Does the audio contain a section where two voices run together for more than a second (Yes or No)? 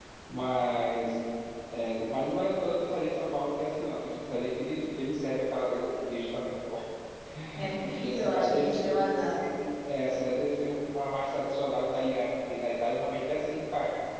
Yes